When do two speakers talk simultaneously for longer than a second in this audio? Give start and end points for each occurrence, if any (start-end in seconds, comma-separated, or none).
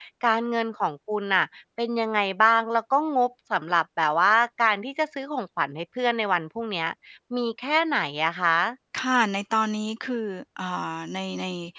none